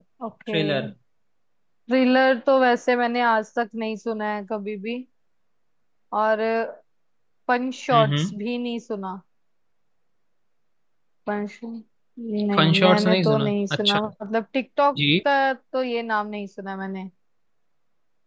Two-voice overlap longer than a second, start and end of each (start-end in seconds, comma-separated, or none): 12.6-14.0